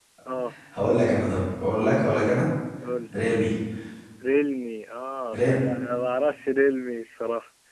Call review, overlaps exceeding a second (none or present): none